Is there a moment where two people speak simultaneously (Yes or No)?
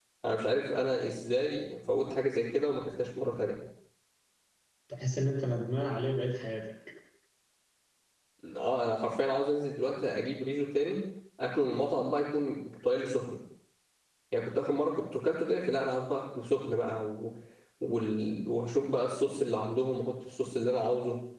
No